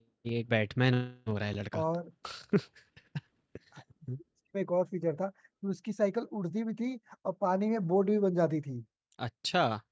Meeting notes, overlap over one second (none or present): none